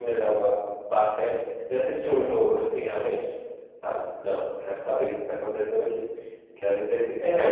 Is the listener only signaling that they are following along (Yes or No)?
No